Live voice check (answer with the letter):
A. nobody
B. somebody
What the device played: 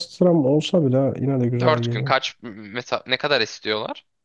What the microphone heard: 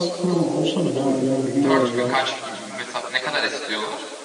B